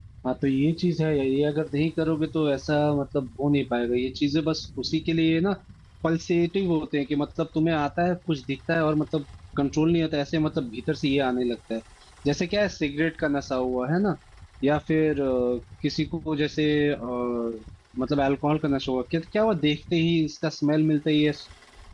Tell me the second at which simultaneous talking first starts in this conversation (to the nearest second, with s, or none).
none